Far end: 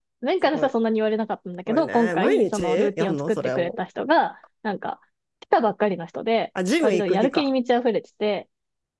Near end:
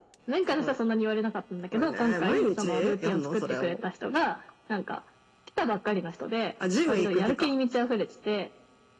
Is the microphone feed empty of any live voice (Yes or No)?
Yes